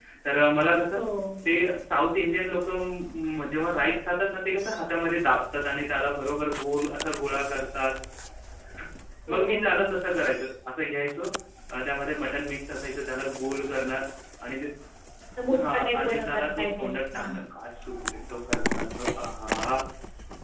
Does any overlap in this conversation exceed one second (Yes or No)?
Yes